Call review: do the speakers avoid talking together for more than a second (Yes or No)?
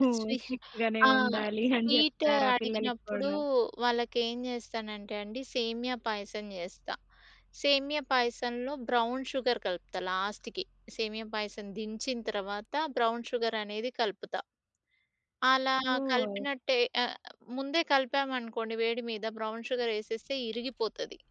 No